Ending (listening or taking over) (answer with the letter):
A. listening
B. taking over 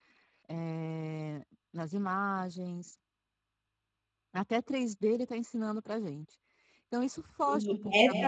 B